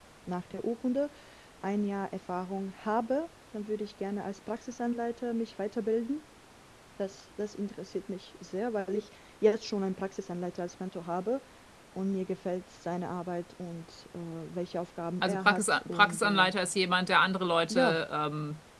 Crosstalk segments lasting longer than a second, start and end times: 15.2-16.5

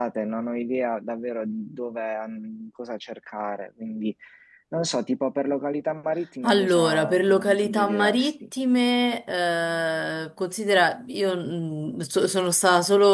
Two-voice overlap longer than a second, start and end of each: 6.5-8.3

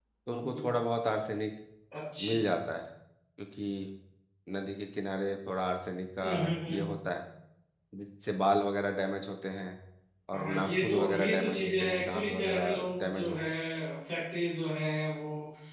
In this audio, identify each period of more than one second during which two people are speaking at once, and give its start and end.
10.3-13.4

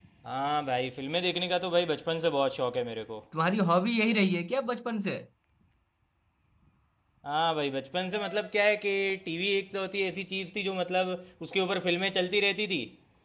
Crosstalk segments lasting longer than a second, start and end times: none

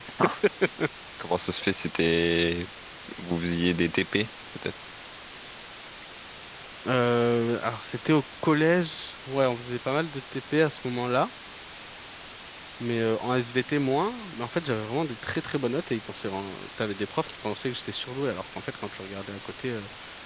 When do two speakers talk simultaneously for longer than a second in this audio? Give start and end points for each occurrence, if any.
none

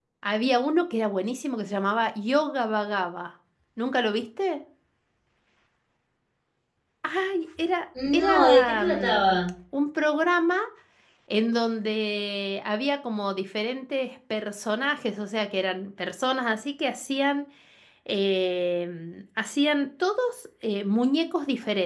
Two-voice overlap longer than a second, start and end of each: 8.1-9.3

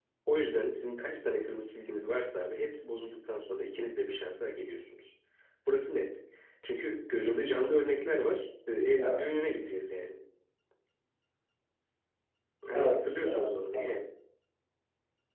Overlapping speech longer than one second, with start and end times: 12.7-13.9

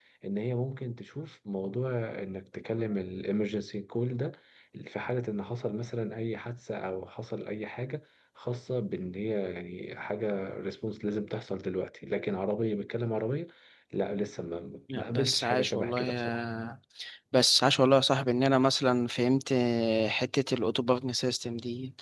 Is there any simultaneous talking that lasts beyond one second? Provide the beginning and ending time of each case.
14.9-16.4

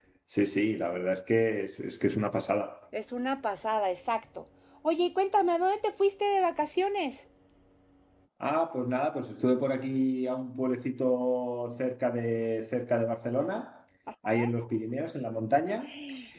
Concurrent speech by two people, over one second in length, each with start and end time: none

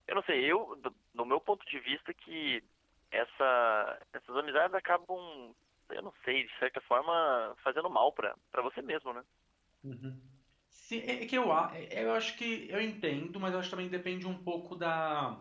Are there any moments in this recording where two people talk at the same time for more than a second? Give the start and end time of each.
none

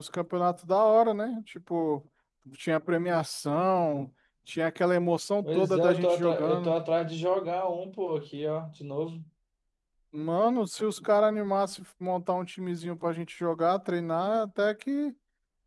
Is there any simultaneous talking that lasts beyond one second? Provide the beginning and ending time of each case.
5.4-6.7

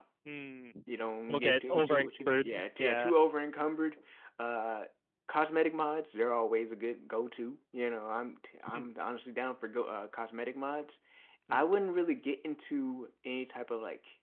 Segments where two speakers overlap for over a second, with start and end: 1.3-3.1

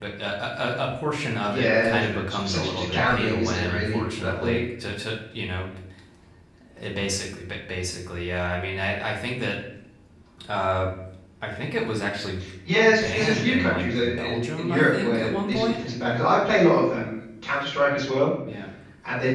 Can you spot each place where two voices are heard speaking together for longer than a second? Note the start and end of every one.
1.5-4.6, 13.0-15.8

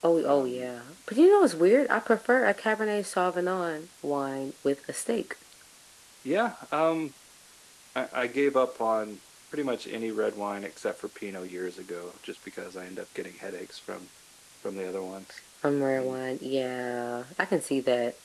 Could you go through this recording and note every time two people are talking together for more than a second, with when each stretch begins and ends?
none

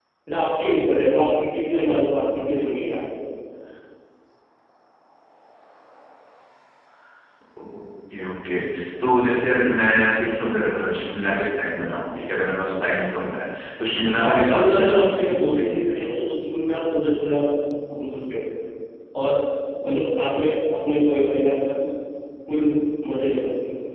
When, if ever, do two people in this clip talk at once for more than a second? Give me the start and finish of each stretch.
14.2-15.9

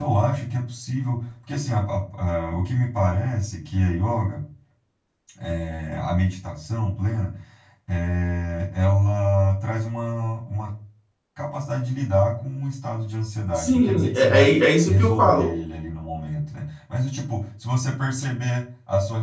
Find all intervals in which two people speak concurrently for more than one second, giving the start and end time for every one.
13.6-15.5

